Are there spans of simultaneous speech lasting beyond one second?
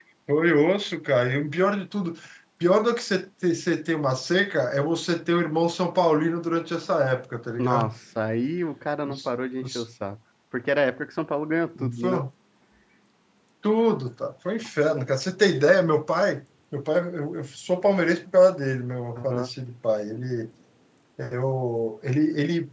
No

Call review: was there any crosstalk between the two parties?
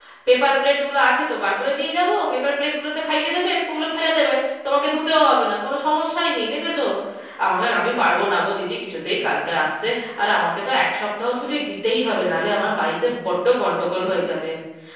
No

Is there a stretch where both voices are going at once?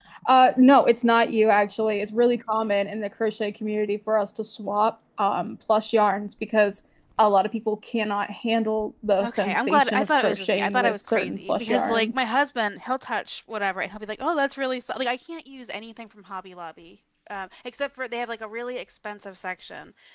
Yes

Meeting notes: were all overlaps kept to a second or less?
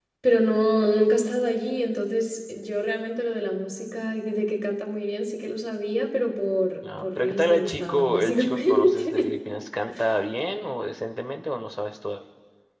No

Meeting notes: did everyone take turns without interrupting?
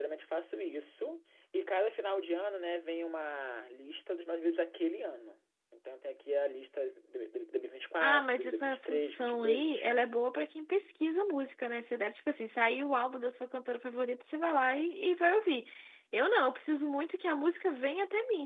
No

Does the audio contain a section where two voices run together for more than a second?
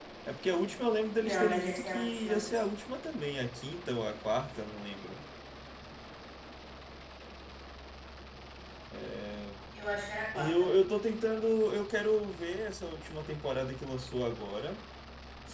Yes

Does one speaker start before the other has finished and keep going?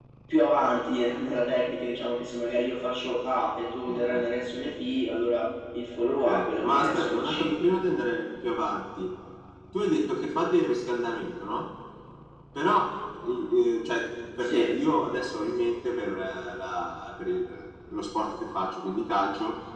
Yes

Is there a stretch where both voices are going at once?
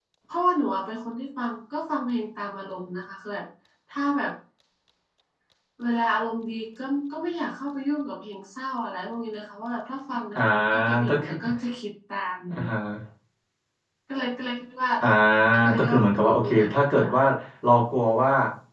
Yes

